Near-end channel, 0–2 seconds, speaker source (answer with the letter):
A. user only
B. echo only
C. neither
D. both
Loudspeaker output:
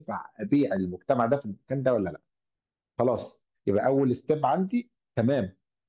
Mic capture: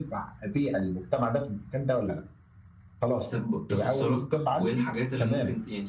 B